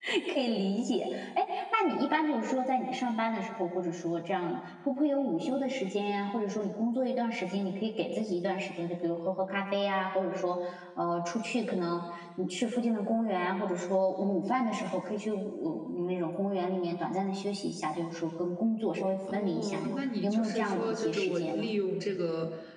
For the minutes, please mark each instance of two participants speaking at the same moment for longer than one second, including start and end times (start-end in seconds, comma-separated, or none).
19.3-21.7